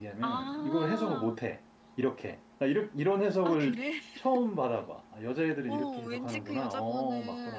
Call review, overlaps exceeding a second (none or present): present